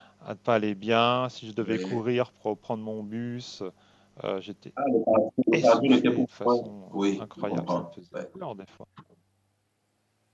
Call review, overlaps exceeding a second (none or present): present